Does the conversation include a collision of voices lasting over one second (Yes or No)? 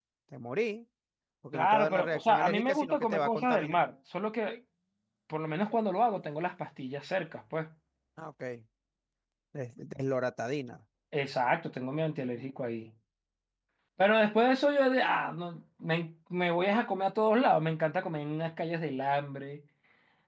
Yes